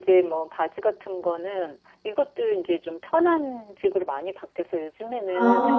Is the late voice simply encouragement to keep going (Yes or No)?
Yes